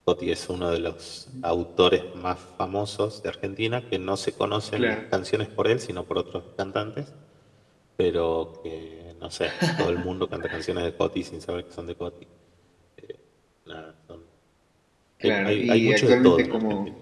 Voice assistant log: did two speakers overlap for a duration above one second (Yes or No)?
Yes